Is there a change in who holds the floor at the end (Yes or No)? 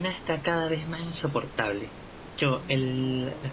No